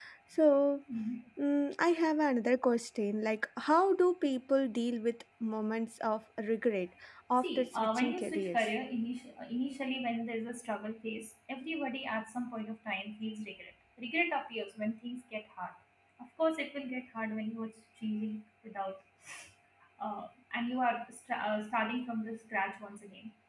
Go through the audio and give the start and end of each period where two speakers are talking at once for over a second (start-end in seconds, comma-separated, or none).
7.4-8.7